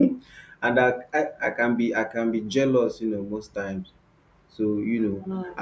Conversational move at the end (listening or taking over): listening